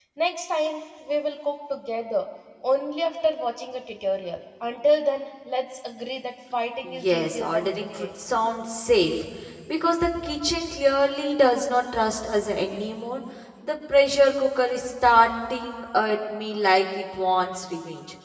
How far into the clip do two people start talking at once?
6.8 s

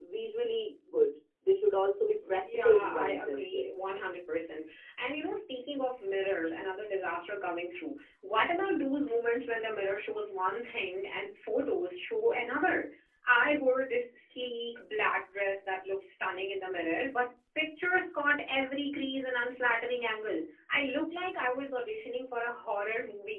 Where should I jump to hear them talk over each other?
2.2 s

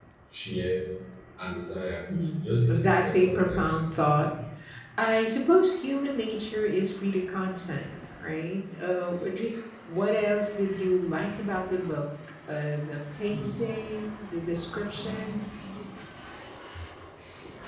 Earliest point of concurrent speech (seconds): 2.4 s

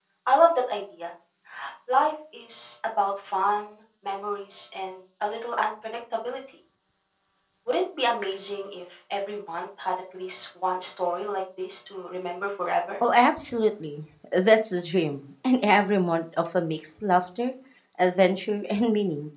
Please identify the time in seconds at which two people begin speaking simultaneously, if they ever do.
none

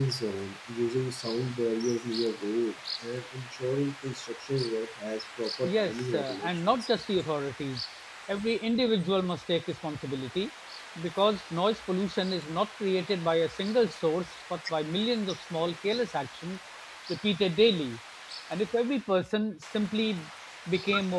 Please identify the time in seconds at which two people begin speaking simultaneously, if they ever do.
5.6 s

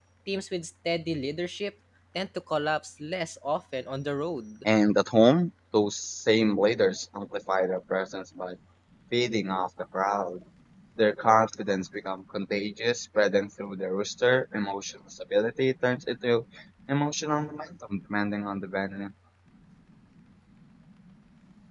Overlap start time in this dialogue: none

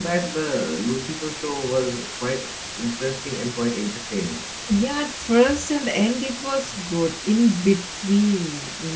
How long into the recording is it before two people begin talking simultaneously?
none

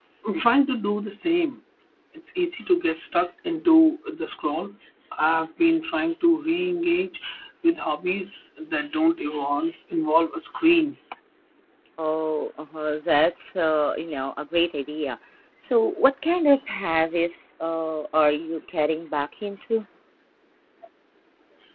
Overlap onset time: none

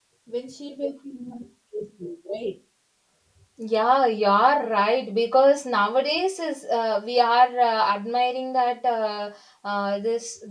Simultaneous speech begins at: none

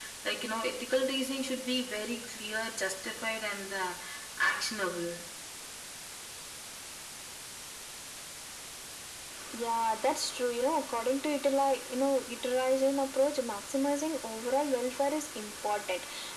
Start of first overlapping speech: none

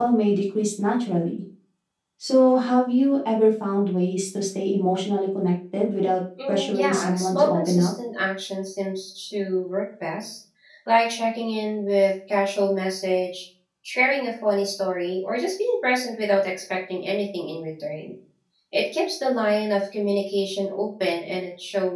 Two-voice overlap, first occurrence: 6.4 s

